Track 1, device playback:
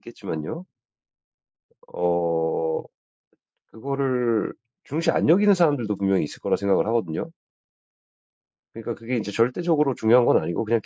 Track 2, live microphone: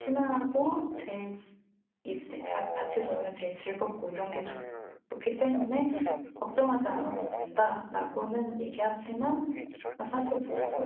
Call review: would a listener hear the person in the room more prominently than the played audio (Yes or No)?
Yes